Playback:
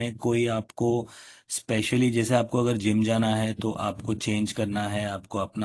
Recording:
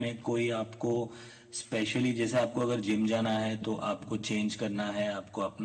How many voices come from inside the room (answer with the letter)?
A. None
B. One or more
A